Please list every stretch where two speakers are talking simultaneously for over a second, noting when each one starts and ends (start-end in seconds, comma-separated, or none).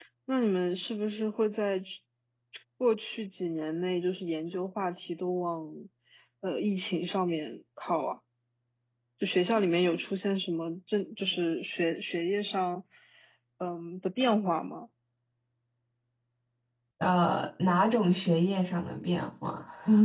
none